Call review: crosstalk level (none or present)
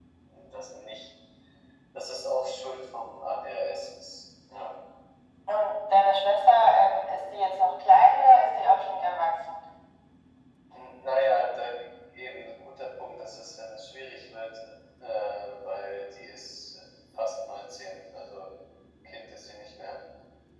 none